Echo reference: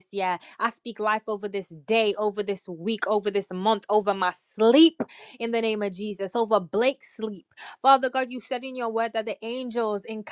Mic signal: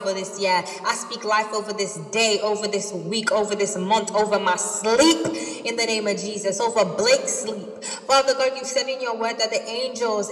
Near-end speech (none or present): none